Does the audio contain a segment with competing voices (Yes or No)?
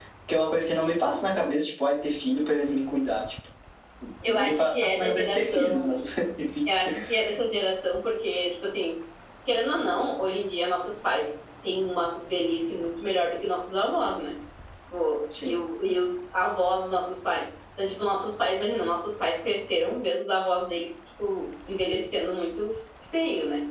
Yes